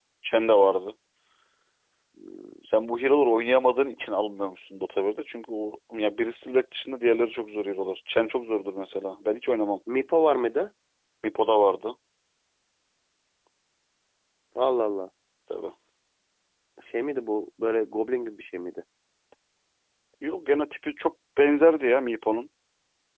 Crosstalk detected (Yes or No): No